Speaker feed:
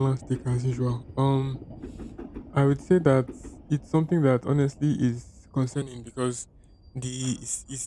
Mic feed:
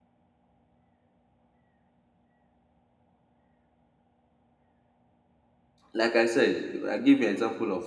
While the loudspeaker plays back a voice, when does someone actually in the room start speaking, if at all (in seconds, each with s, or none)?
5.9 s